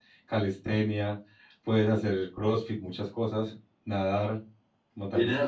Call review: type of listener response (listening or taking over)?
taking over